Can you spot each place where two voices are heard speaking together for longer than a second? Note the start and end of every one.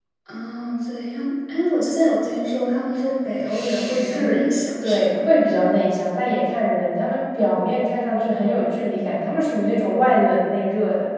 3.4-5.2

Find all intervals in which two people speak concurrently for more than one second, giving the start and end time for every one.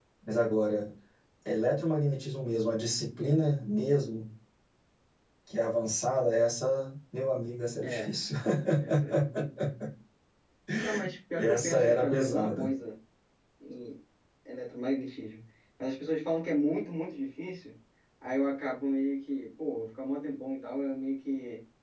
11.4-12.7

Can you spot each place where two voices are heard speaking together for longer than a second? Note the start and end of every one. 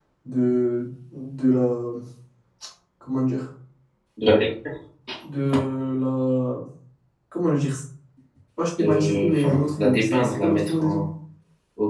8.8-11.0

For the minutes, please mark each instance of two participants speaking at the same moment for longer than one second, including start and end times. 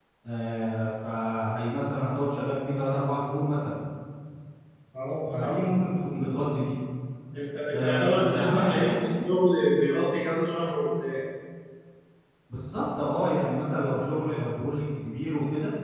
7.7-8.9

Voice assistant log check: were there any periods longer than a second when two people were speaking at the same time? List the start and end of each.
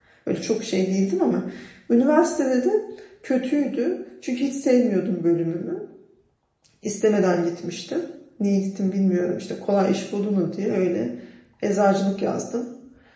none

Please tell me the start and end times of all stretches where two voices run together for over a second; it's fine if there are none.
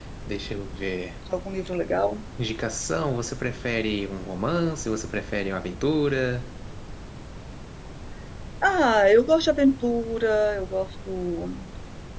none

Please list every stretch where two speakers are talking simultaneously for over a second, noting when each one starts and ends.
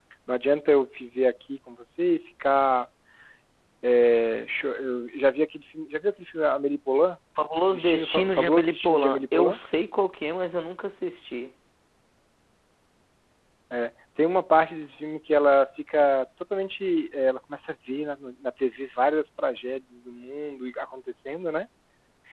7.7-9.6

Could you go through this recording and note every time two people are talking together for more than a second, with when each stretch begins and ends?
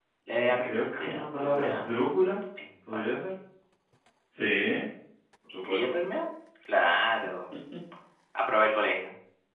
0.6-1.9

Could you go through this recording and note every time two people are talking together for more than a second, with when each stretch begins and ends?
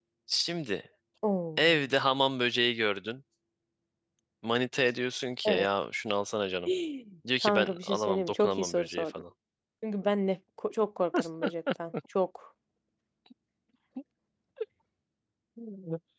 7.4-9.1

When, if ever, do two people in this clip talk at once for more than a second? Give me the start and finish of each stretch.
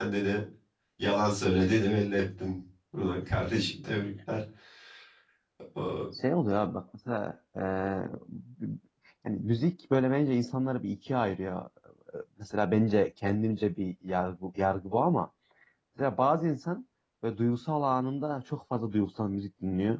none

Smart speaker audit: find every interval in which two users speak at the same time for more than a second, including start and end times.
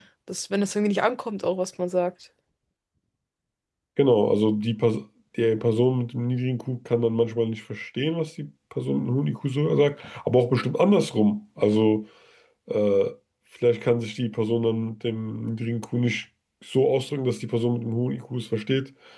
none

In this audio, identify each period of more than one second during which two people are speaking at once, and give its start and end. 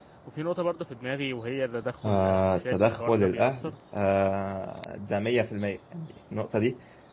2.0-3.7

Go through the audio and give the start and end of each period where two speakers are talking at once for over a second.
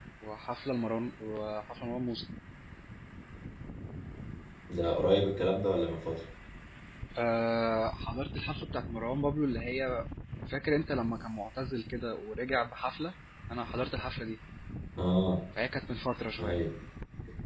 none

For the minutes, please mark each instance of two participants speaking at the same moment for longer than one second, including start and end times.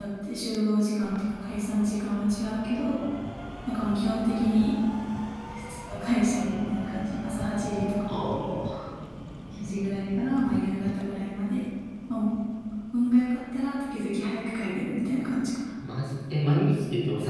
none

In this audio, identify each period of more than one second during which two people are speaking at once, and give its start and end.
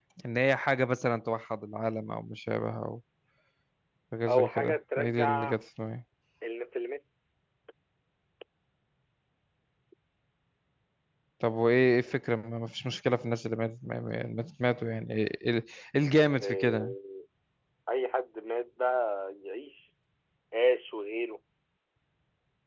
4.3-5.6

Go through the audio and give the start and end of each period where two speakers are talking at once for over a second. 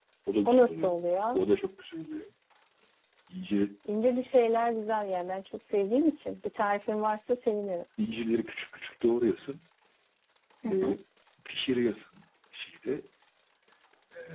none

